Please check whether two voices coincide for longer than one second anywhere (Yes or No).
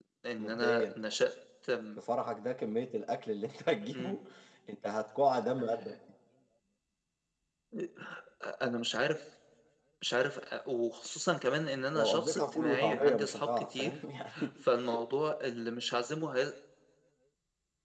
Yes